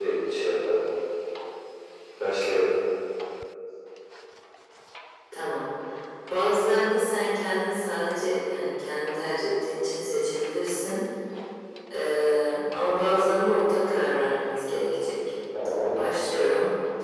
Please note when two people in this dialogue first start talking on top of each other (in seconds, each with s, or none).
none